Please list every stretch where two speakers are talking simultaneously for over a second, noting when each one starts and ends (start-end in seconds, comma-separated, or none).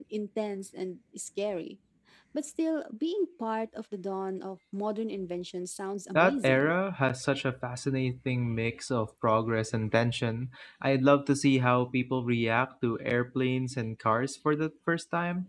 none